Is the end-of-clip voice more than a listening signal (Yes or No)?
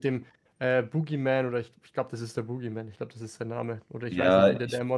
Yes